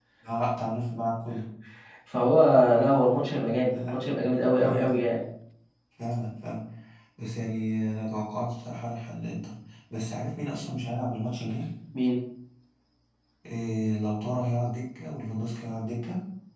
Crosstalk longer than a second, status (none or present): none